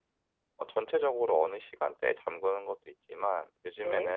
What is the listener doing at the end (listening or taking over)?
listening